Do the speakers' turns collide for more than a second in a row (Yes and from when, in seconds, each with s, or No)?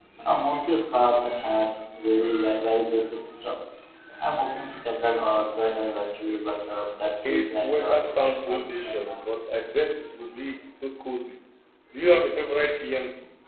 Yes, from 7.2 s